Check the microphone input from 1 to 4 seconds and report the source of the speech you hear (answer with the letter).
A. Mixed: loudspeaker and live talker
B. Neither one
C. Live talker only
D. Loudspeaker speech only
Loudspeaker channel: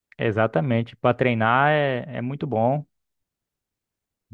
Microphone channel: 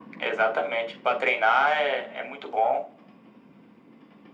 D